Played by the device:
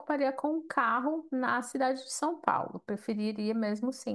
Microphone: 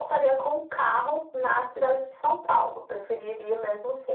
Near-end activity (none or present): none